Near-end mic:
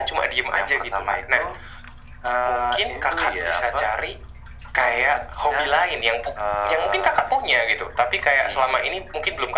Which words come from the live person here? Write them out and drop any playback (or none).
none